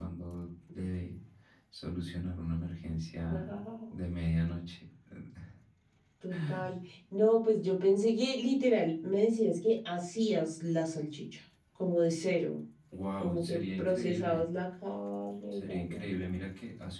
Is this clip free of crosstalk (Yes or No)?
No